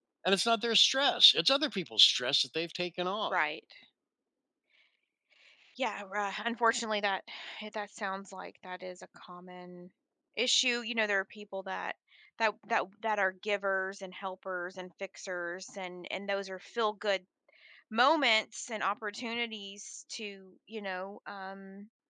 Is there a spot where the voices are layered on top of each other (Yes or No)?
No